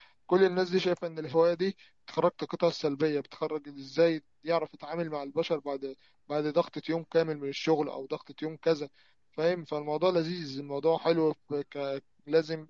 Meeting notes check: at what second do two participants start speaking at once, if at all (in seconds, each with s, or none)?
none